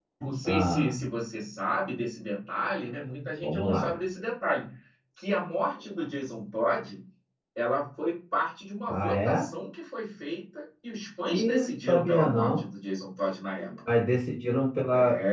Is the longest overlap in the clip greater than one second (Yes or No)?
Yes